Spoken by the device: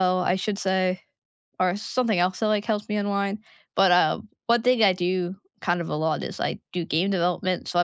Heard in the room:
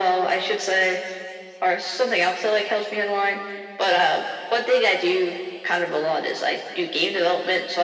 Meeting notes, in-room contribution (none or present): none